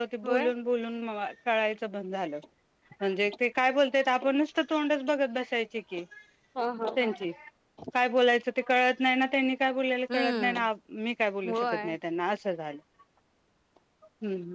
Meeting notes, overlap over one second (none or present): none